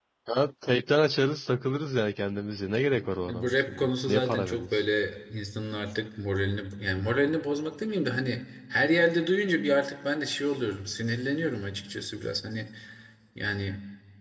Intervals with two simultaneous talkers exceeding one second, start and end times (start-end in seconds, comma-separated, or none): 3.2-4.8